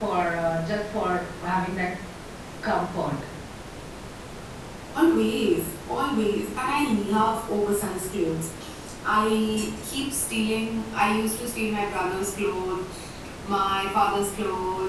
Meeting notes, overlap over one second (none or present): none